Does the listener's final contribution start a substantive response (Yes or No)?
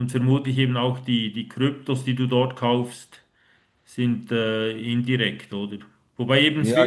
No